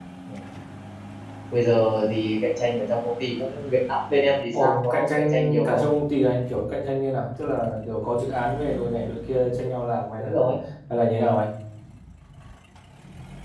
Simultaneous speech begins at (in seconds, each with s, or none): 4.5 s